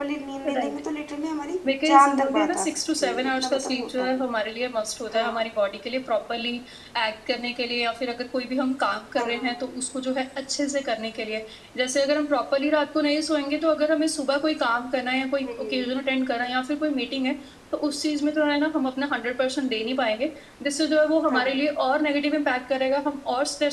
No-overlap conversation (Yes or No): No